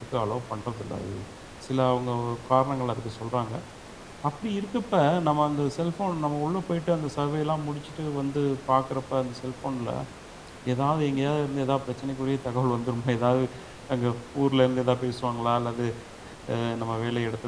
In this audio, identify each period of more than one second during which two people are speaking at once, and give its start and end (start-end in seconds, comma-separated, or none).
none